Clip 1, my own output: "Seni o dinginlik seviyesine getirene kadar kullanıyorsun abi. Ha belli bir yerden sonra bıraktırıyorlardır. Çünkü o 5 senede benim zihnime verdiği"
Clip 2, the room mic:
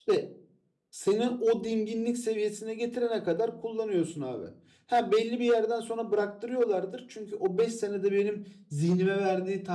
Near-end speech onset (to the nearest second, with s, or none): none